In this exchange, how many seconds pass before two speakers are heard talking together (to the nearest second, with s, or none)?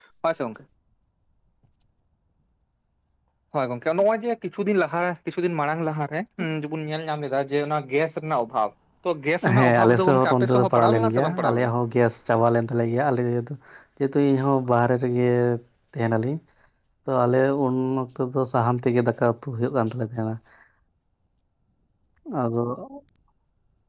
9 s